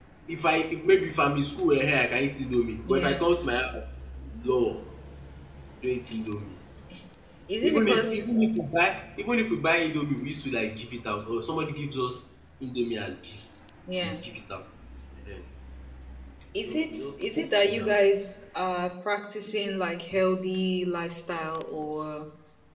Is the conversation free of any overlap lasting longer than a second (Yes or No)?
No